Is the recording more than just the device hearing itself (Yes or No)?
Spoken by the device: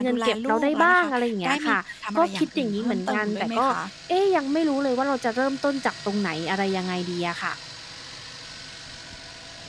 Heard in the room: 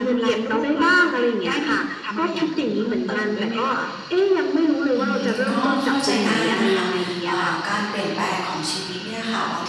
Yes